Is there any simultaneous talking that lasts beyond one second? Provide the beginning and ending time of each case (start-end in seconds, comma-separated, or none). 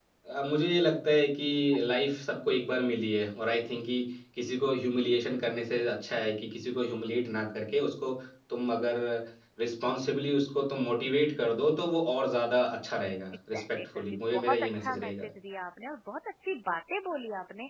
13.5-15.3